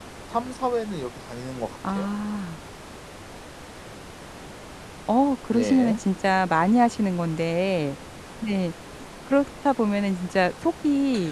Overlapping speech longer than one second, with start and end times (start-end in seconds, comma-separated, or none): none